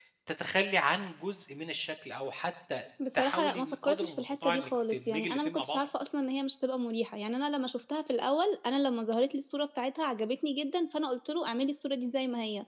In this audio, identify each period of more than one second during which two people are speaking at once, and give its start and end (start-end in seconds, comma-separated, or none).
3.1-5.8